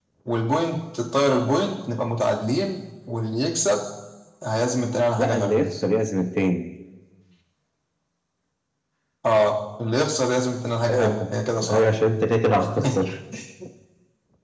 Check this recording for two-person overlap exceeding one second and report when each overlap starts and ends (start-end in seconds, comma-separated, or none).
none